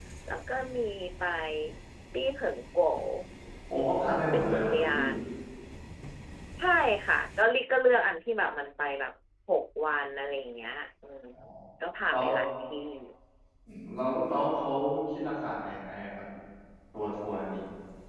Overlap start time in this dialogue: 3.7 s

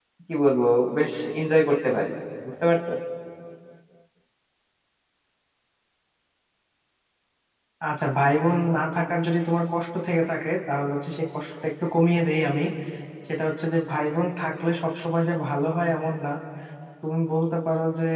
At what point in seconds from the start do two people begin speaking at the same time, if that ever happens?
none

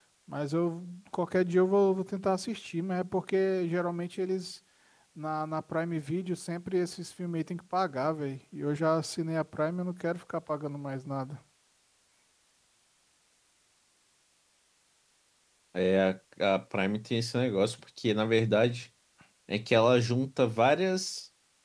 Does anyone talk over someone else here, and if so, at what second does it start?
none

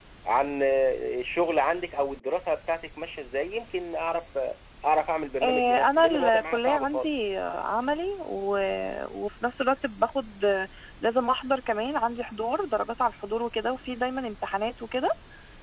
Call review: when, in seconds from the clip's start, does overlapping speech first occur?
5.4 s

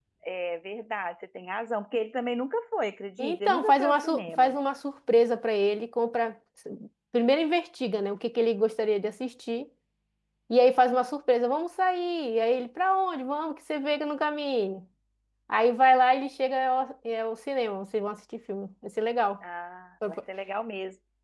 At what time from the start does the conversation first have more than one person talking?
3.2 s

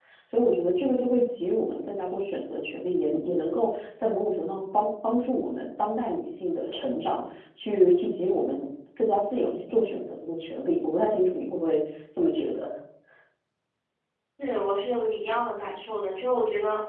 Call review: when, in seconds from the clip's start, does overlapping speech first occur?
none

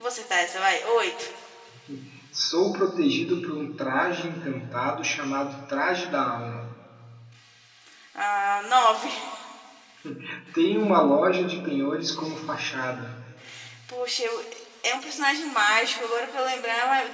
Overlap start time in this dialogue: none

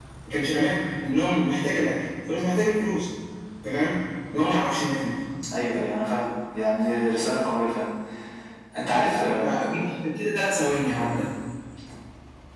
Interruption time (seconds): none

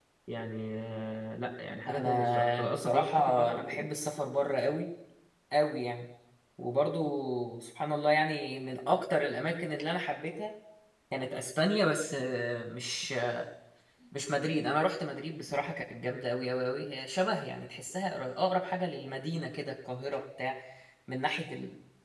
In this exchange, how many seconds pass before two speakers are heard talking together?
1.9 s

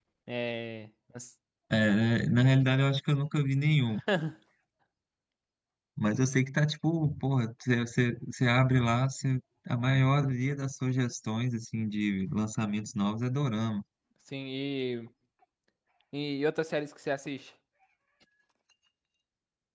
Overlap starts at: none

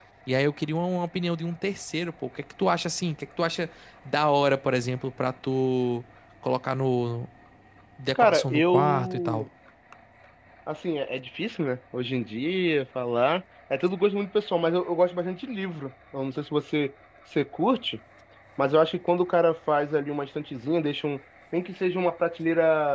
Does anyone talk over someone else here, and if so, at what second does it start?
8.2 s

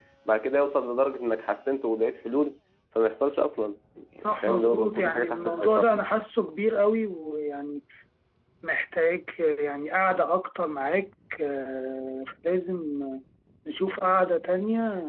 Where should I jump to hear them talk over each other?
4.2 s

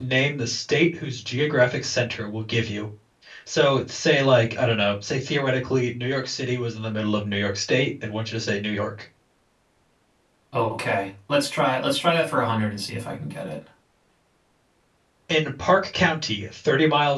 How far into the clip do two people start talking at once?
none

